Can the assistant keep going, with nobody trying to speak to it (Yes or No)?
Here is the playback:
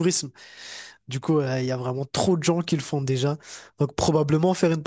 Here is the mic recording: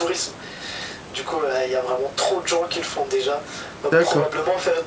No